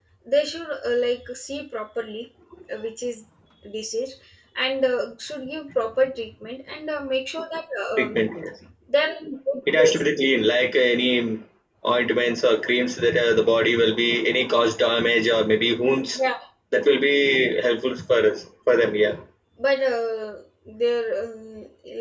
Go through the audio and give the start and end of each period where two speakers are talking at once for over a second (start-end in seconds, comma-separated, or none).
none